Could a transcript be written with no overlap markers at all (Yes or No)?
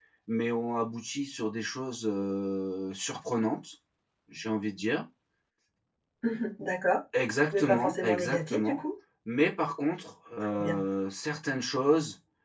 No